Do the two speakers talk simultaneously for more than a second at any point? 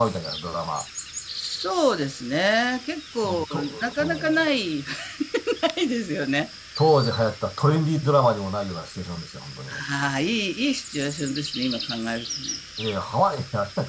Yes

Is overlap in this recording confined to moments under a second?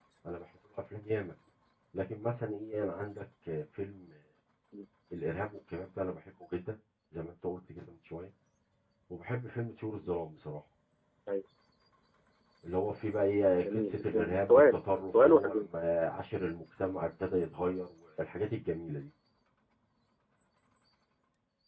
No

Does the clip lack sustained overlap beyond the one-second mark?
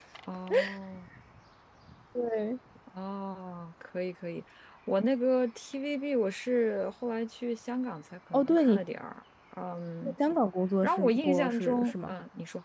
No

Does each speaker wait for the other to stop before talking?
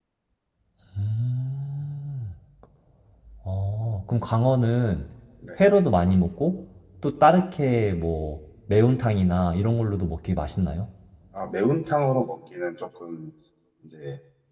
Yes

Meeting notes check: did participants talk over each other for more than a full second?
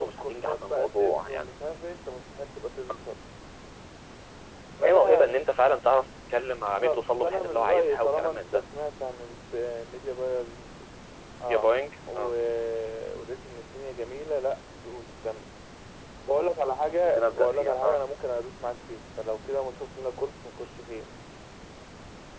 Yes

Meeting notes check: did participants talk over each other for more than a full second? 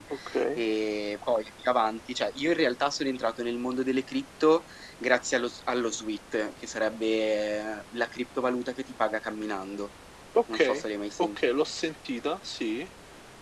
No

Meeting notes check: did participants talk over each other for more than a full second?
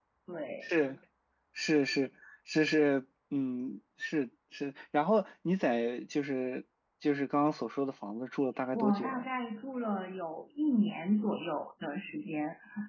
No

